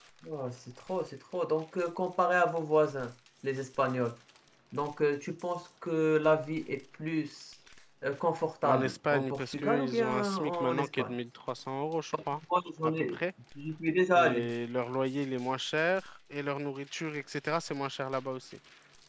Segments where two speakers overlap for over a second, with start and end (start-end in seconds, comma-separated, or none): 8.6-11.1